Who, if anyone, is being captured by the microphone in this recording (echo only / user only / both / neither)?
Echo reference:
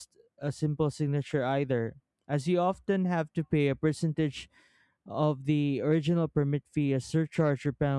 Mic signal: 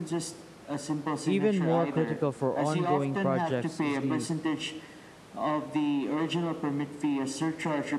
both